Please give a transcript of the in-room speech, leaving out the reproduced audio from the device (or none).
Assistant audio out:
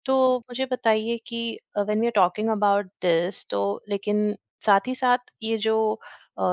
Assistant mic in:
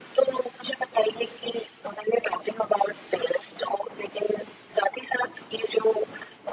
none